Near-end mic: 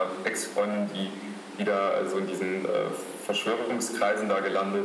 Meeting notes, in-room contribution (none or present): none